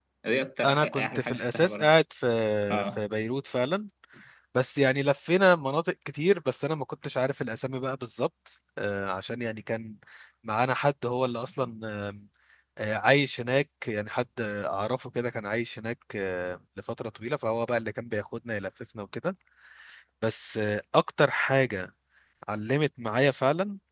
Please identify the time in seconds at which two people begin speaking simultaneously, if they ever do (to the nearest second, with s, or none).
1 s